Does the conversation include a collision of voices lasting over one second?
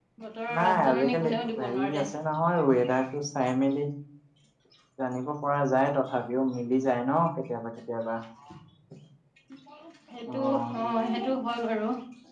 Yes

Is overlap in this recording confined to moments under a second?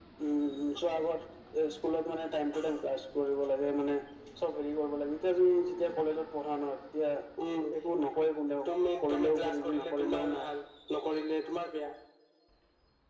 No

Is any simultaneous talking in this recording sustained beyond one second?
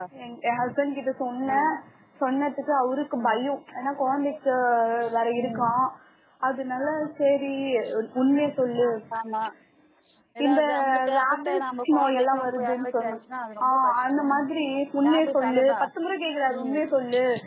Yes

